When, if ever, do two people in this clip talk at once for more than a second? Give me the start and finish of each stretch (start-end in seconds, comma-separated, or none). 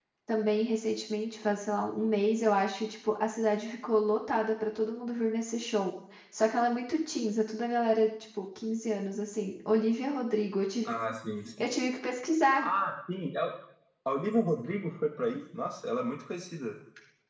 none